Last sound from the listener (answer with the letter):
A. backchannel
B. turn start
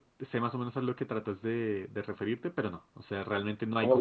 B